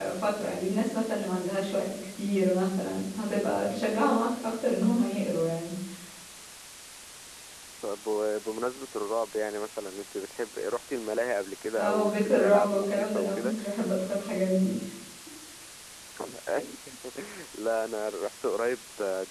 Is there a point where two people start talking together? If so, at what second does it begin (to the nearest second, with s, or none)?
12 s